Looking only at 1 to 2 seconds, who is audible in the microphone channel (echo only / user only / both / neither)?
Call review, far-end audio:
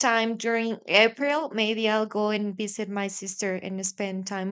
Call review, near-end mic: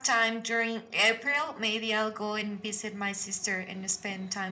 echo only